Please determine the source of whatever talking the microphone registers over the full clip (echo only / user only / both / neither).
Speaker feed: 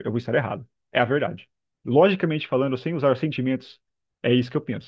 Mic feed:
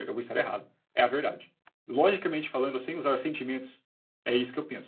echo only